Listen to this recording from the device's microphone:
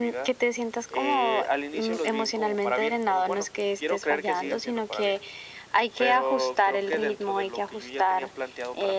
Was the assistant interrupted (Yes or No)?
No